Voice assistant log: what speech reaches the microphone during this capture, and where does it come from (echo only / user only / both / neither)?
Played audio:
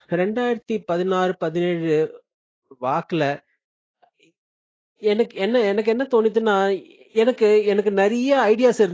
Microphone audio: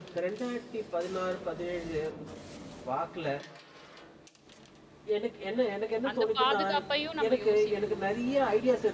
both